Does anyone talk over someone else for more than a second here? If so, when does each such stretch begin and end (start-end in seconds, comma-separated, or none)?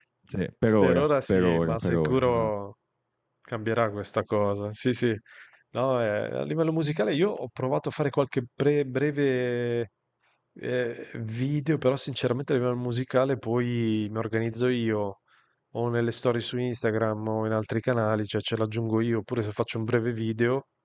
0.8-2.5